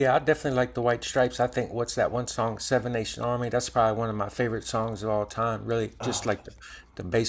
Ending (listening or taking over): listening